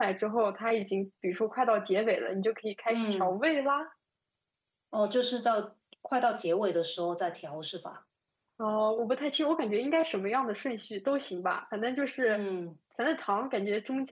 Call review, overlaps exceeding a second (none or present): none